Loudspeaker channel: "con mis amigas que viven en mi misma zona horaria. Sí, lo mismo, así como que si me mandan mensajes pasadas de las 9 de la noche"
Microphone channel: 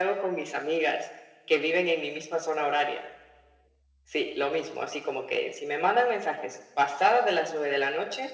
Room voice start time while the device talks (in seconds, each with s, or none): none